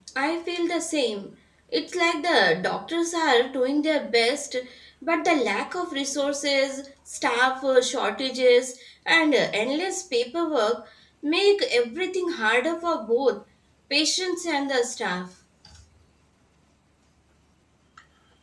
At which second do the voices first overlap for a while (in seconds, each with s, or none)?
none